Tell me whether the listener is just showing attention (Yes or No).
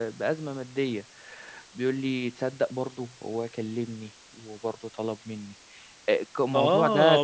No